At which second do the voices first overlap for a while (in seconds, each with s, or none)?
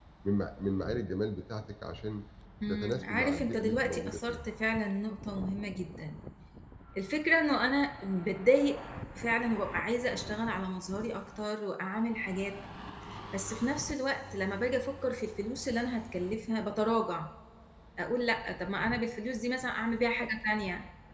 2.7 s